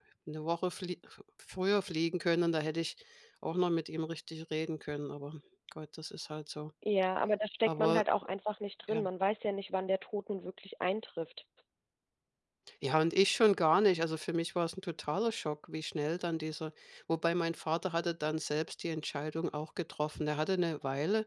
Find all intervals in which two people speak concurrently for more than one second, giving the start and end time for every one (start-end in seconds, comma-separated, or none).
none